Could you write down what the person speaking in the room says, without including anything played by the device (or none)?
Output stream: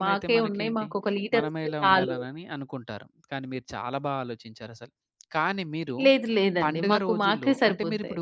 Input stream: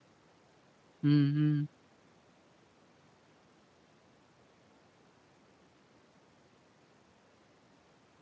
హ్మ్. హ్మ్.